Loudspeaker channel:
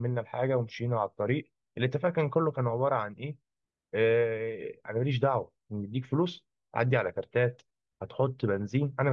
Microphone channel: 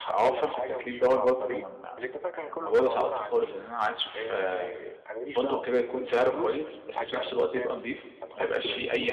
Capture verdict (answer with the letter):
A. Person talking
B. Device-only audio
A